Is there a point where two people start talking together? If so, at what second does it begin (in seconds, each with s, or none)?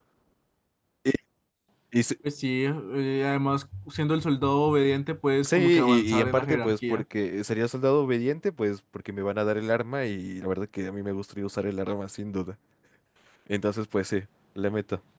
5.4 s